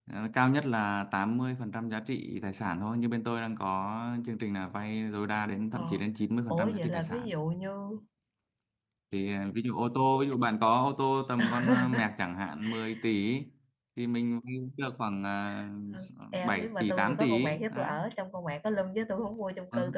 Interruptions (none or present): present